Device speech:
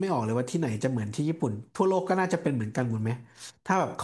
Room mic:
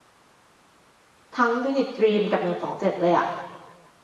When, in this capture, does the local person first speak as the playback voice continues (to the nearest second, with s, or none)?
1 s